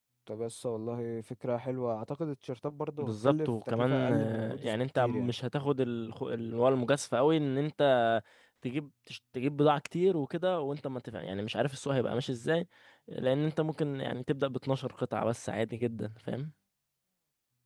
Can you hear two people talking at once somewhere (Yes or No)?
Yes